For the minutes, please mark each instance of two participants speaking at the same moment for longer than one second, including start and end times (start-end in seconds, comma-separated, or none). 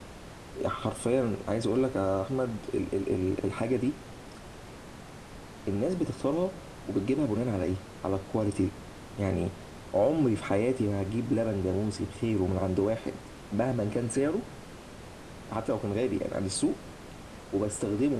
none